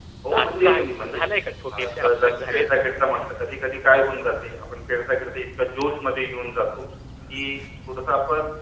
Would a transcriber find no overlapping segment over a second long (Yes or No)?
No